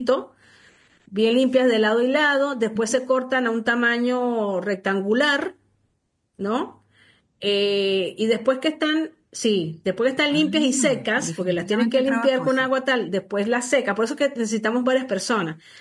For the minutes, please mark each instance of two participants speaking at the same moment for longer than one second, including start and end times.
10.3-12.5

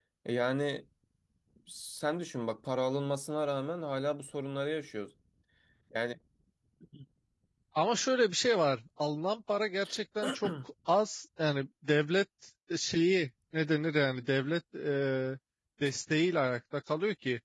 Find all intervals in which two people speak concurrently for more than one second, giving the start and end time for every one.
none

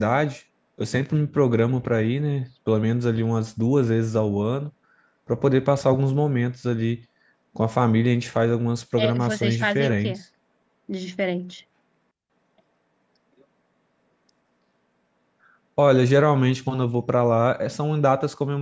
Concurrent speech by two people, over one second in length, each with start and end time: 9.0-10.2

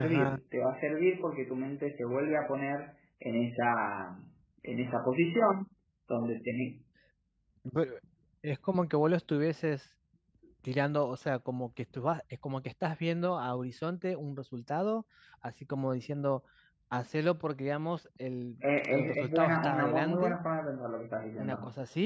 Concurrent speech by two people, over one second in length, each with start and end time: 18.8-20.4

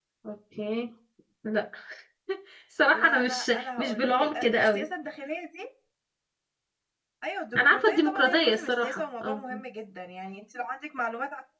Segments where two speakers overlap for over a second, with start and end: 2.9-4.8, 7.6-9.4

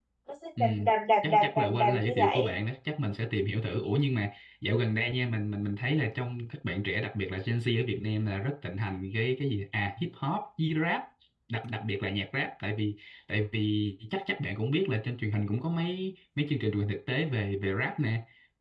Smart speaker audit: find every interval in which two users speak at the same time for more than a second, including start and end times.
1.2-2.5

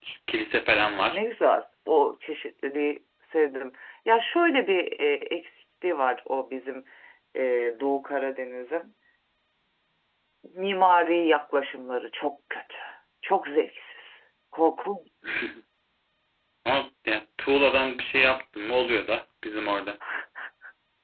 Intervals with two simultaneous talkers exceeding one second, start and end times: none

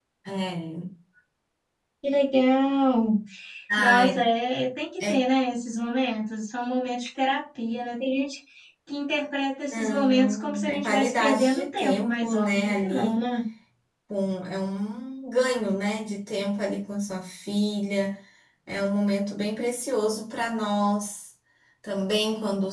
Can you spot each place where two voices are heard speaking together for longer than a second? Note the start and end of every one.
9.7-13.2

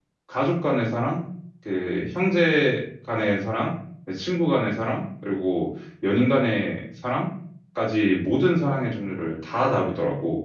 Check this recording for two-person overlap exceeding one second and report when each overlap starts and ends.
none

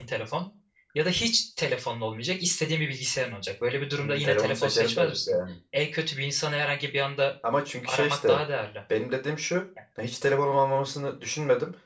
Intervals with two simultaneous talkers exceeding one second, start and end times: 4.0-5.4

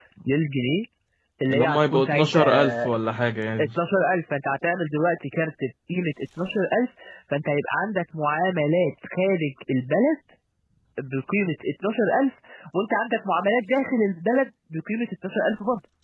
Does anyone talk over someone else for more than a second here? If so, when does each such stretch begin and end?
1.5-2.9

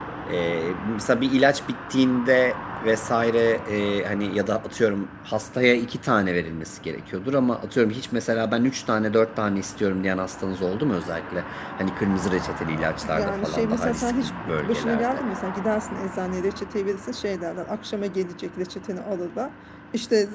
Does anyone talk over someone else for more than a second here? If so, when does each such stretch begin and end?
13.1-15.2

